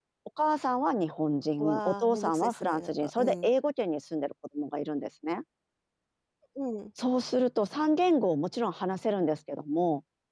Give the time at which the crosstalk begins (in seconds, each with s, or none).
1.6 s